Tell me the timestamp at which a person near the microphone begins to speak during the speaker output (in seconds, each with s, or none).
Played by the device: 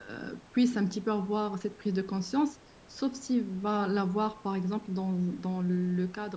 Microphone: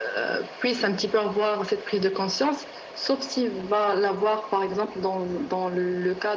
none